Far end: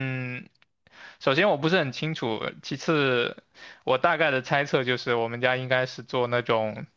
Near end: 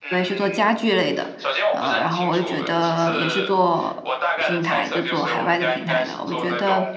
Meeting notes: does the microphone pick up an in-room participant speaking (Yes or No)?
Yes